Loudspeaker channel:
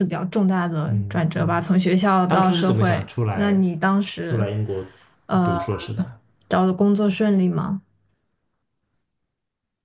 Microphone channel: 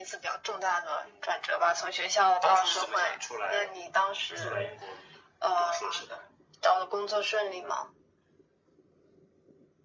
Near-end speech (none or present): present